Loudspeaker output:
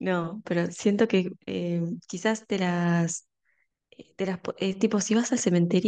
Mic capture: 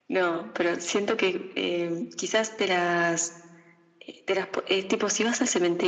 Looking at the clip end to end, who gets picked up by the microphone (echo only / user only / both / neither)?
echo only